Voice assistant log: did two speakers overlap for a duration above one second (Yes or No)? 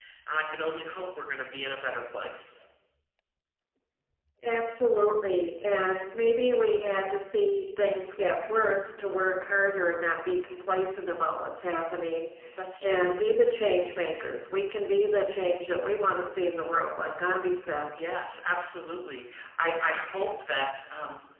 No